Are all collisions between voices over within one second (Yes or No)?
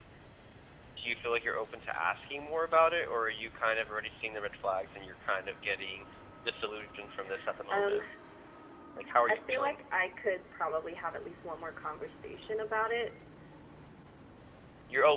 Yes